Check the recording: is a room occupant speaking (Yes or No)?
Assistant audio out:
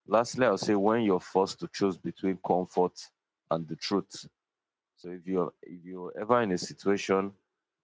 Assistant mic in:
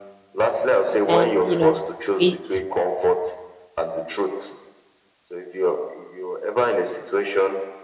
Yes